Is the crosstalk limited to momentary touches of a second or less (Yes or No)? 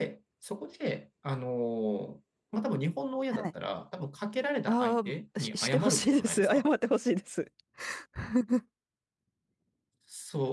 No